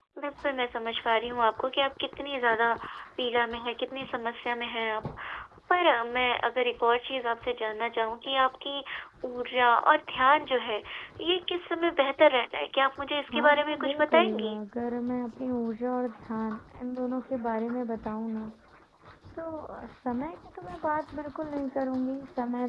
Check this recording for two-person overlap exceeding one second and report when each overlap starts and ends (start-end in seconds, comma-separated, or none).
13.3-14.6